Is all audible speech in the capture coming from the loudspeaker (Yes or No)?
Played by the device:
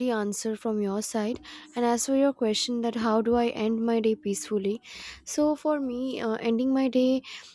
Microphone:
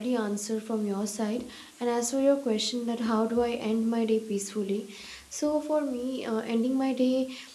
Yes